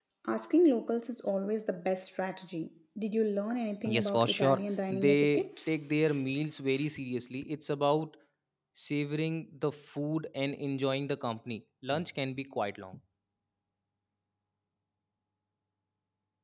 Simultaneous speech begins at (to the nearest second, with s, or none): 4 s